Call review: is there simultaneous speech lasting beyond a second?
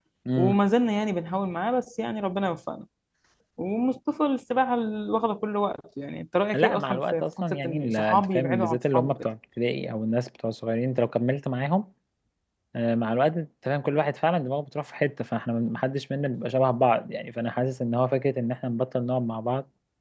Yes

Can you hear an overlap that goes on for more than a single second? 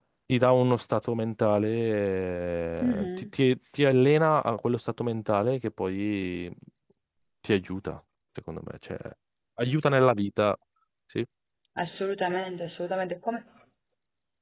No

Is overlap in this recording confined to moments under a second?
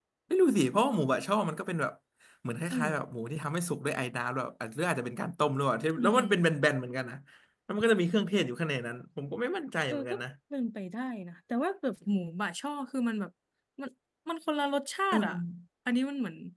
Yes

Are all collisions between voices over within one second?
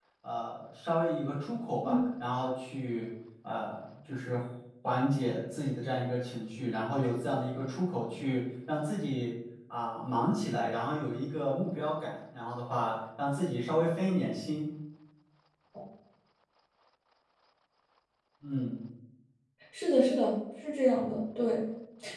Yes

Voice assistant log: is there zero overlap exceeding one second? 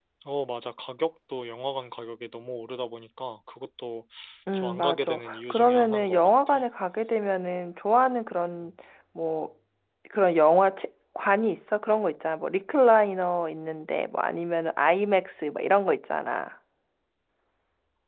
No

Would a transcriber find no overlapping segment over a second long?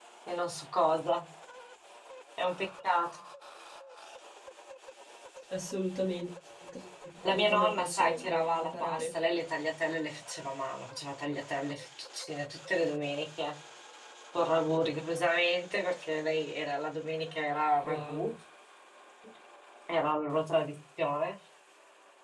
No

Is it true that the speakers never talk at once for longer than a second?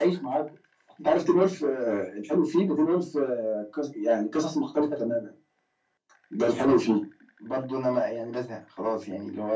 Yes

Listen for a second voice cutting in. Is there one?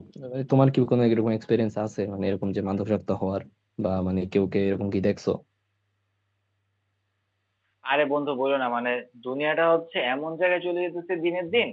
No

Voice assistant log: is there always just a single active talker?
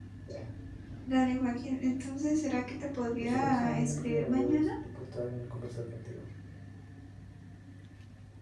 No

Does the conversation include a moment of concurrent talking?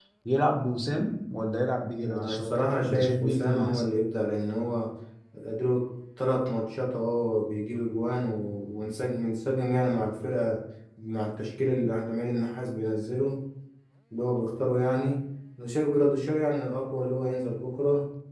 Yes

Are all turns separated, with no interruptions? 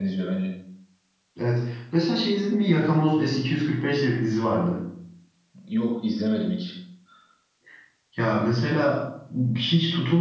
Yes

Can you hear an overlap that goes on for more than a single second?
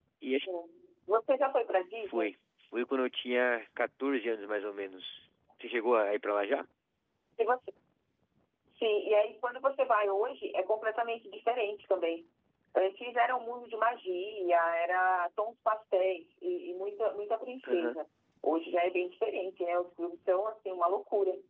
No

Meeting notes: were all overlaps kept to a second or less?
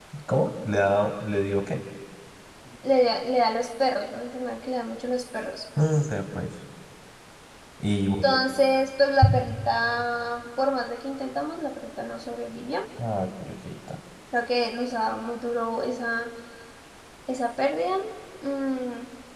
Yes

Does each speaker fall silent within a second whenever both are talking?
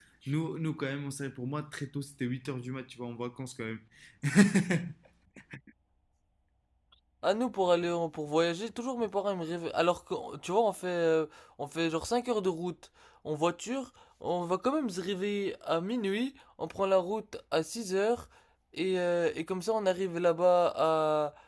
Yes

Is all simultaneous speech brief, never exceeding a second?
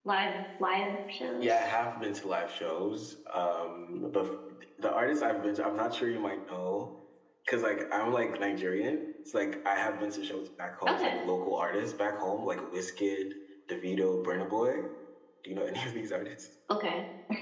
Yes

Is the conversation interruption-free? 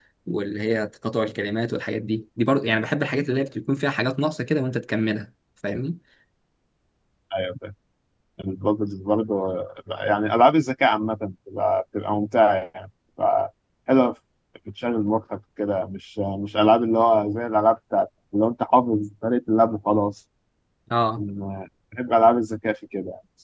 Yes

